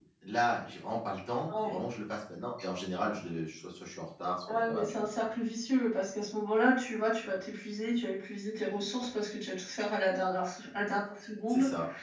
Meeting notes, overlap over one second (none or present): none